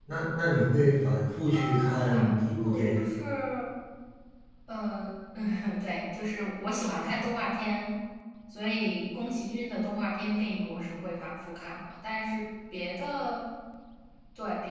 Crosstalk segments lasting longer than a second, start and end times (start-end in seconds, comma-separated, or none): 1.5-3.0